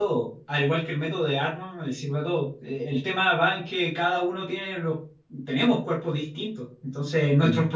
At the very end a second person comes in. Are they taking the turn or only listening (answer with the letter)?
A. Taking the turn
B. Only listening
B